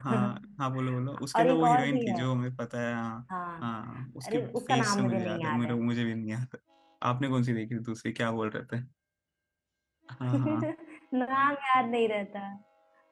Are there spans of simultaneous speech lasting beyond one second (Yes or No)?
Yes